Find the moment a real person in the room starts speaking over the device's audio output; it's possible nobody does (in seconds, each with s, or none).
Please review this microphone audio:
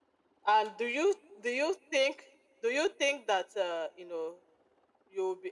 none